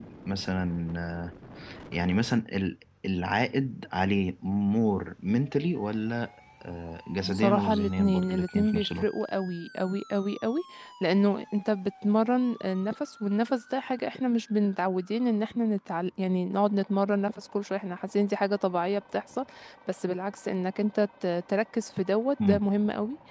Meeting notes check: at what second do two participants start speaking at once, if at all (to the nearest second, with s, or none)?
7 s